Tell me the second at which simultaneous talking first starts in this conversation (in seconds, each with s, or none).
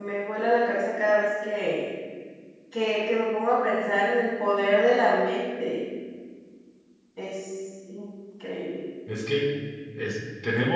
none